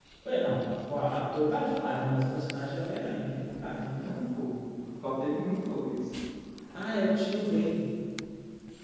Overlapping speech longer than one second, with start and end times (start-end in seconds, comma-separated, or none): none